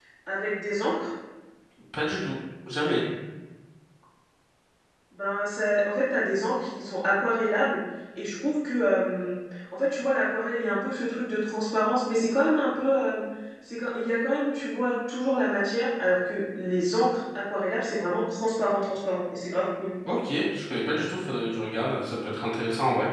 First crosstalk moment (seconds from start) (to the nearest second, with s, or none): none